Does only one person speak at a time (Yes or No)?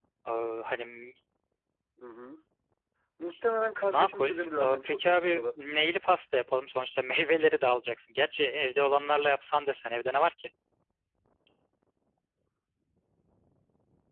No